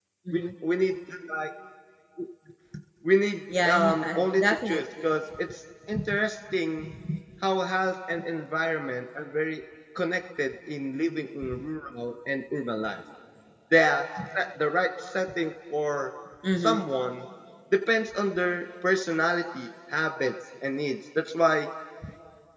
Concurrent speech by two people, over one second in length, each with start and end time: 3.6-5.1

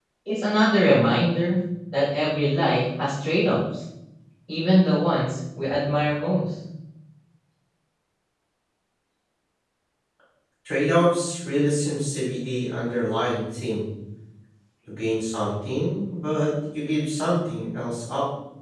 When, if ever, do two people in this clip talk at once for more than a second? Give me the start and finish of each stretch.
none

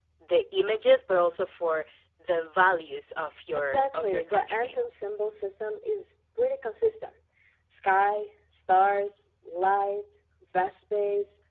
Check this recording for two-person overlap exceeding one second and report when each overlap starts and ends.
3.6-4.8

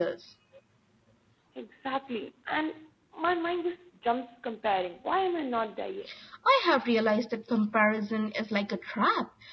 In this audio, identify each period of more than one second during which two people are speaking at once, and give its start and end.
none

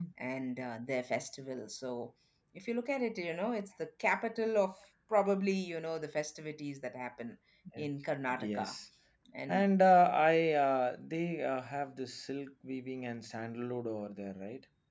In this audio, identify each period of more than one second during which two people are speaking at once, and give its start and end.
none

